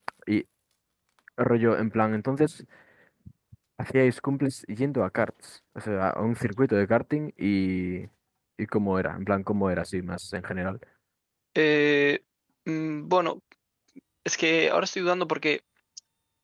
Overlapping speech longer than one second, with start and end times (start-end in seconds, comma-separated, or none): none